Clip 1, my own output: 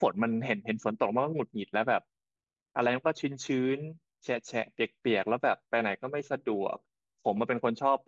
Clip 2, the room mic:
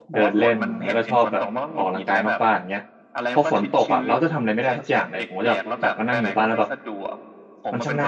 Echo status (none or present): present